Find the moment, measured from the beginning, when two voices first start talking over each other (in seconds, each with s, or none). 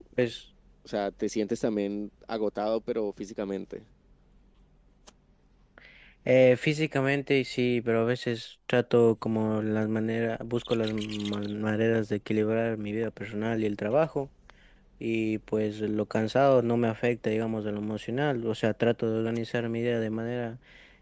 none